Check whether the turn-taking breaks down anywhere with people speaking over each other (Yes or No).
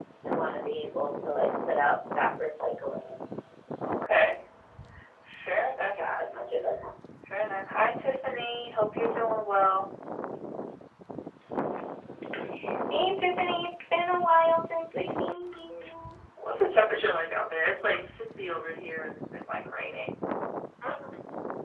No